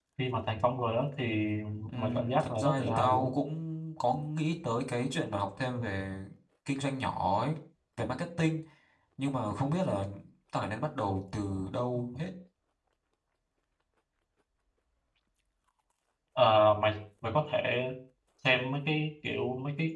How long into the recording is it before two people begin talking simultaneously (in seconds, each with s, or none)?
2.0 s